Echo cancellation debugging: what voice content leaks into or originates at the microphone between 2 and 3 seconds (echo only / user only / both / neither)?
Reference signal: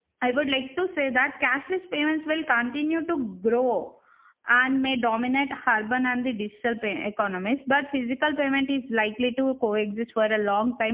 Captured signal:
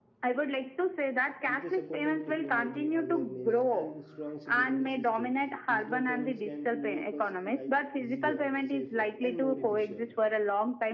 both